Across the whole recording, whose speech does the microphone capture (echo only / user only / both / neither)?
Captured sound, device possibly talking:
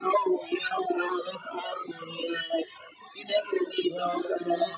both